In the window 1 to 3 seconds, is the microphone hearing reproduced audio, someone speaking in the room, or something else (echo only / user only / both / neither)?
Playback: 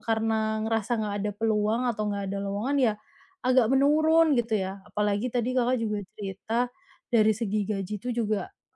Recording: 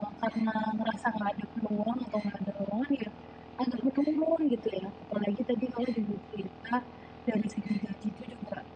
echo only